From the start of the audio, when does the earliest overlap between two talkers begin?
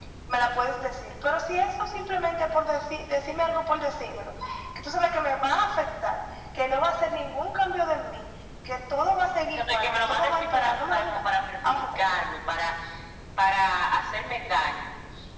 9.6 s

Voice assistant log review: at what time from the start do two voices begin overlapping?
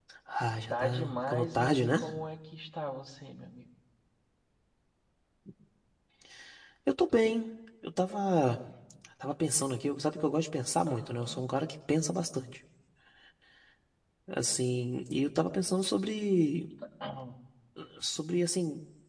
0.7 s

